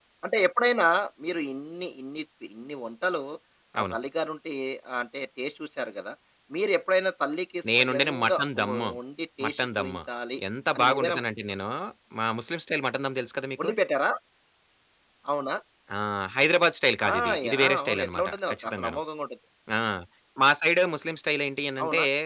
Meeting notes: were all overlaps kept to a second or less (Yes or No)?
No